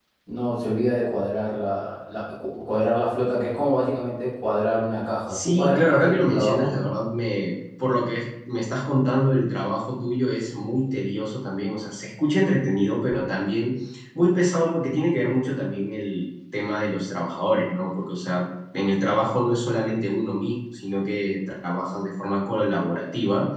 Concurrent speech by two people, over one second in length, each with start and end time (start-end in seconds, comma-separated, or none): 5.3-6.7